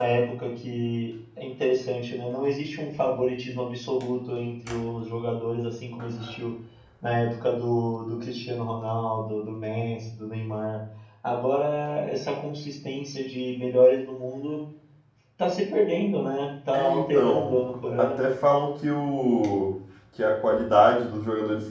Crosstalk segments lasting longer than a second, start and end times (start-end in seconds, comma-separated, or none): 16.7-18.4